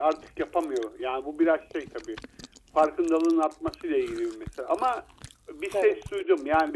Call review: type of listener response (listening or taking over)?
listening